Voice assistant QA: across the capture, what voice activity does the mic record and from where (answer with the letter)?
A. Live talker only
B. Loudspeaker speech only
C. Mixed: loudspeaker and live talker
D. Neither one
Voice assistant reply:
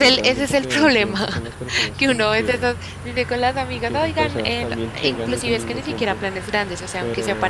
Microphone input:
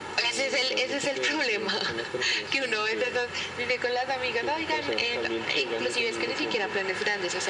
B